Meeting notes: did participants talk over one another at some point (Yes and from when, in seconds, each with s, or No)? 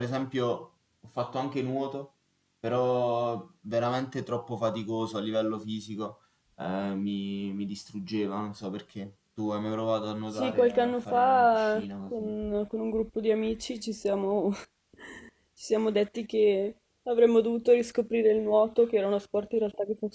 Yes, from 10.3 s